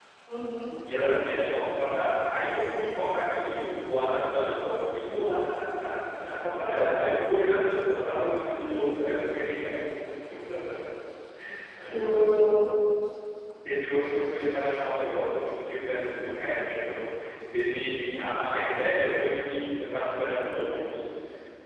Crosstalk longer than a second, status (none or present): none